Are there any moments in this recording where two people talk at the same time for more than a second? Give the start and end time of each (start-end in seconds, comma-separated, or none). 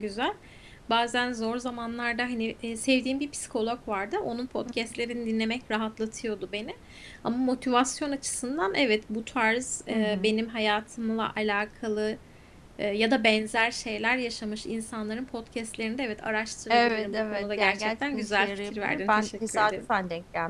16.7-19.8